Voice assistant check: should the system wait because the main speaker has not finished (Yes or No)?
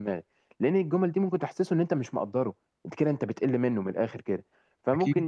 Yes